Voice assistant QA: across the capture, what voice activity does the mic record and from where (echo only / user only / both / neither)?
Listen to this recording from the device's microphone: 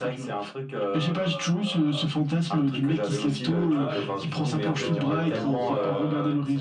both